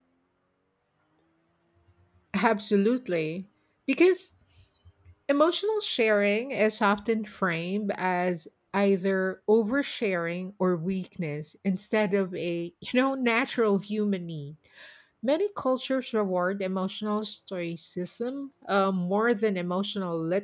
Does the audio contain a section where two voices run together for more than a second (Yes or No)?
No